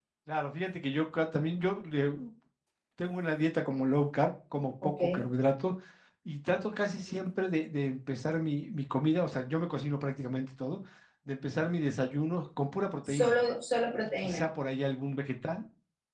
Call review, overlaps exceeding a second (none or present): none